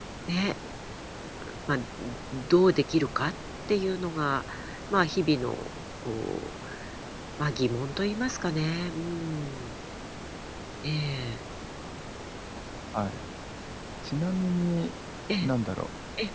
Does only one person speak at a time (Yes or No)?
Yes